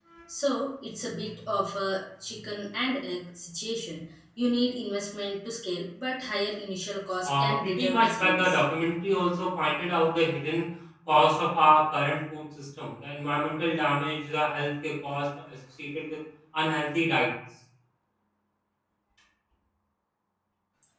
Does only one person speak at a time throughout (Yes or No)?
No